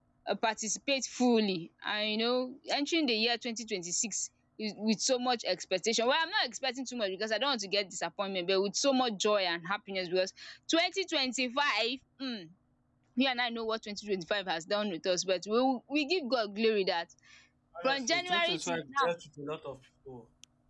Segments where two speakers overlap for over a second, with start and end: 17.8-19.1

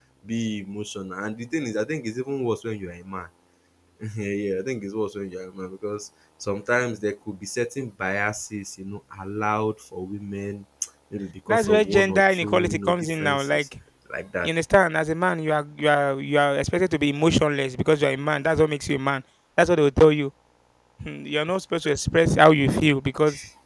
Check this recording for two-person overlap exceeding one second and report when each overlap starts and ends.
11.5-13.6

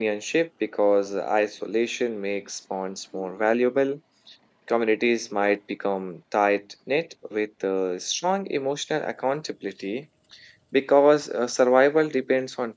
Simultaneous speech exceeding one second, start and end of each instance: none

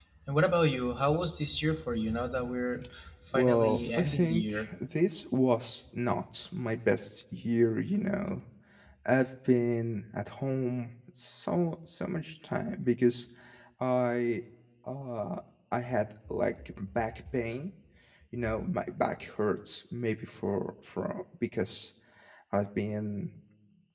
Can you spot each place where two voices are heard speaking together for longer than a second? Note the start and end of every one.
3.3-4.7

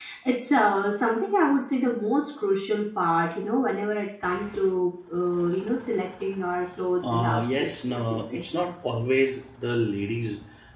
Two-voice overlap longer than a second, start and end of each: 7.0-8.4

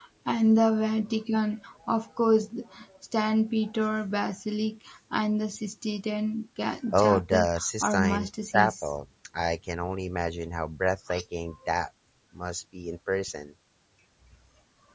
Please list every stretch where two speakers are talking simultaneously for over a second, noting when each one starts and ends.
6.9-8.9

